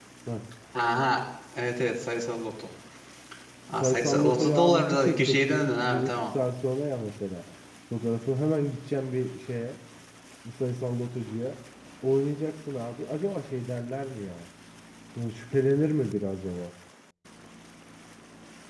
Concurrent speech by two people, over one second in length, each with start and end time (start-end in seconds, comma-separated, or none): 3.8-6.2